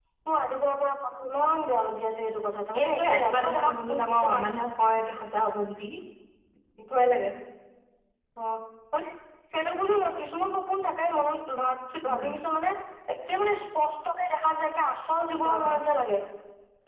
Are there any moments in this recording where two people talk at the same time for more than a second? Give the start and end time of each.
2.8-4.4

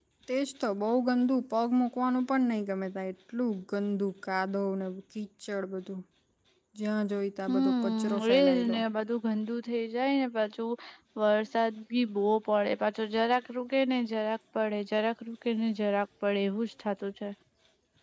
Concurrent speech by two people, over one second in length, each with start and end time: 7.5-8.8

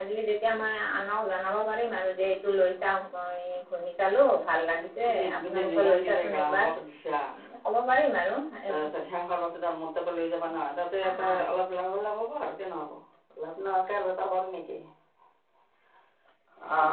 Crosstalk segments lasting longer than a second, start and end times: 5.1-6.7

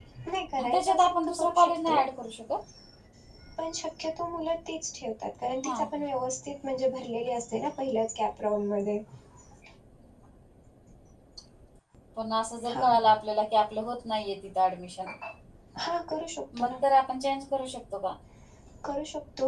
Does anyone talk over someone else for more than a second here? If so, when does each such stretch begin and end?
0.6-2.0

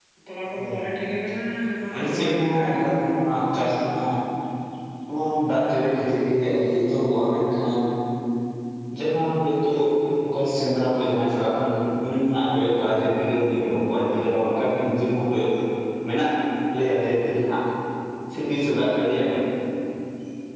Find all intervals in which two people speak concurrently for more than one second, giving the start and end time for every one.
1.9-3.1

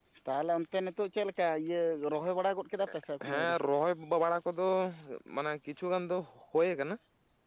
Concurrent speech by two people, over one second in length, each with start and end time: none

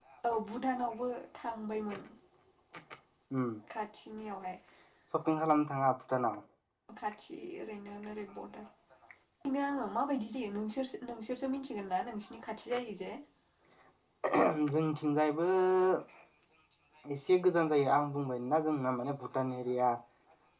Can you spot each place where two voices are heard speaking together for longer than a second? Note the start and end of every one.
none

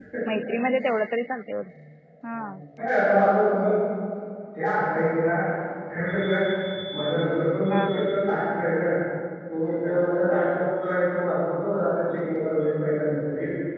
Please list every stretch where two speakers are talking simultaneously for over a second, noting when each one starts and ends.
none

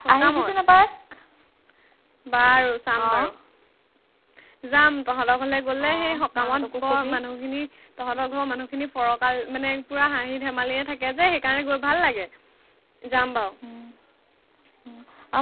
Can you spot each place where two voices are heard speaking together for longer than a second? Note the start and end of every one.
5.8-7.1

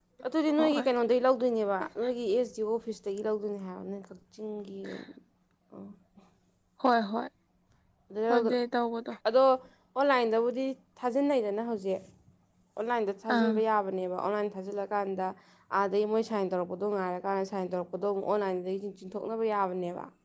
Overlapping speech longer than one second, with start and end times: none

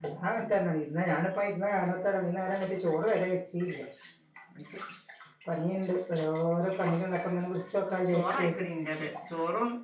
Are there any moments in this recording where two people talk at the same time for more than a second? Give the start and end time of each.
none

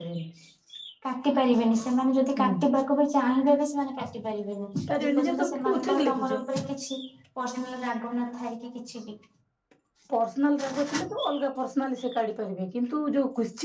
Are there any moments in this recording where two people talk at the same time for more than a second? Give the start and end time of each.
5.0-6.3

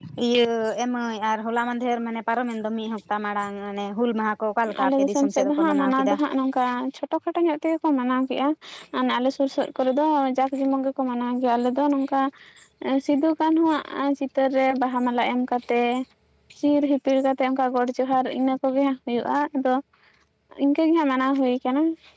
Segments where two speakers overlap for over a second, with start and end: 4.8-6.1

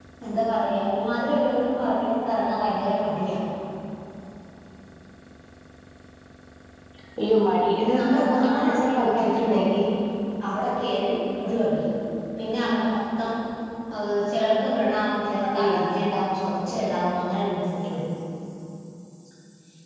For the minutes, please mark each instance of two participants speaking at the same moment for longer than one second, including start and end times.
7.8-9.6

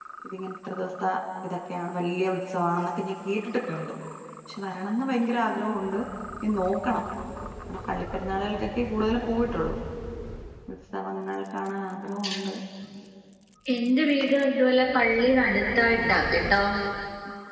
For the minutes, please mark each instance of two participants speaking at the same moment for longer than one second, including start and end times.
none

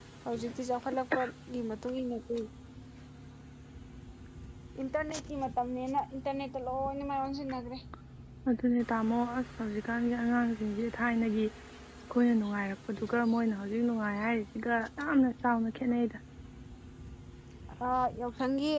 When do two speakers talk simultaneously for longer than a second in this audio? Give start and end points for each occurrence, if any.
none

